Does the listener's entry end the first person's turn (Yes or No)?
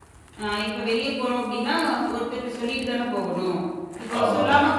No